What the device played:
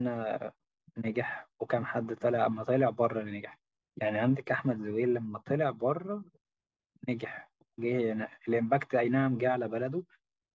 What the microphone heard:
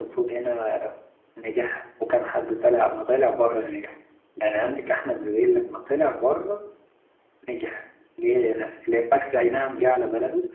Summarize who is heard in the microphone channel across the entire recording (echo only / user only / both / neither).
echo only